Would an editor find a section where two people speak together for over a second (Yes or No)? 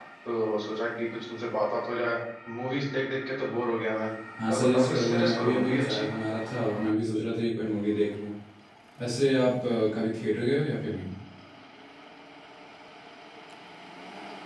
Yes